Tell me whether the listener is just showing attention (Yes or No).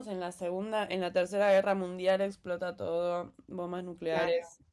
No